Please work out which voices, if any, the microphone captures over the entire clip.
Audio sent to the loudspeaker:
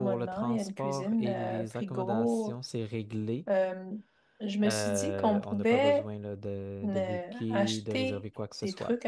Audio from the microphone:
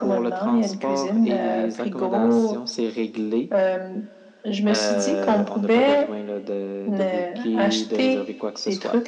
echo only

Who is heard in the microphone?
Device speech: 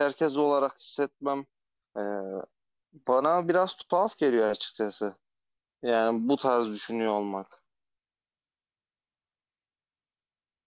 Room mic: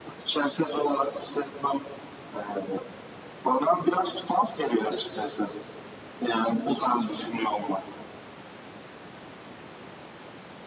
echo only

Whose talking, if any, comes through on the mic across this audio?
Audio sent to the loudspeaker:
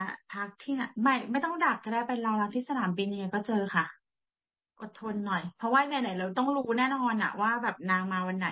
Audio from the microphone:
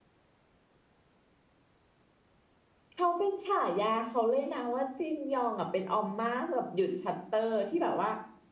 user only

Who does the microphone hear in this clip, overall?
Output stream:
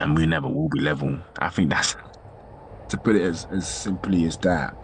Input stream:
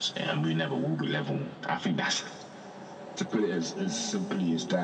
both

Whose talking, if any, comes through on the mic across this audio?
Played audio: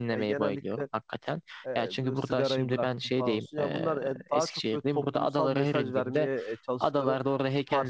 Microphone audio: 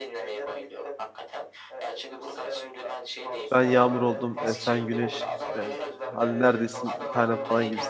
both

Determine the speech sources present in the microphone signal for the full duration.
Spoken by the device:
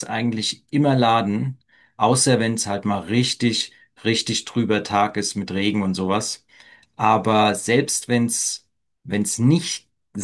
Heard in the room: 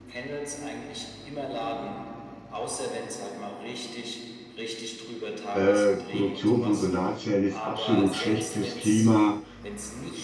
both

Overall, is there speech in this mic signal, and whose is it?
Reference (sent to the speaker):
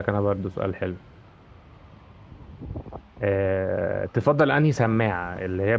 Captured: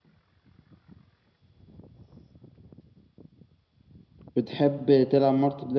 user only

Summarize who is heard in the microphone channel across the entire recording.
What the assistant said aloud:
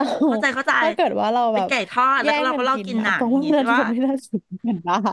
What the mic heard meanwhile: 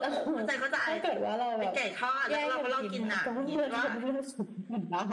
echo only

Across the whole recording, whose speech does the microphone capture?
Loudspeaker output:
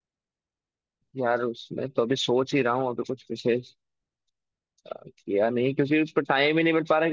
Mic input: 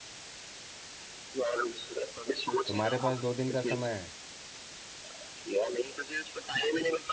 both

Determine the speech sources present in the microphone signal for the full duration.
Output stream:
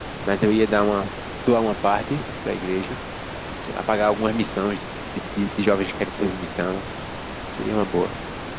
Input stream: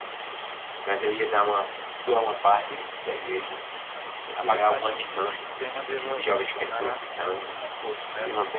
both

